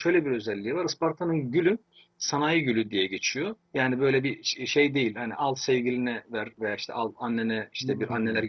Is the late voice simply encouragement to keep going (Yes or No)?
Yes